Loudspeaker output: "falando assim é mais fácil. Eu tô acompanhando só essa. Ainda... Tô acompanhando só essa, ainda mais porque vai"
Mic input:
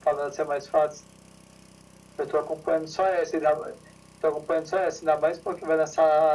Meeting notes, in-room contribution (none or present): none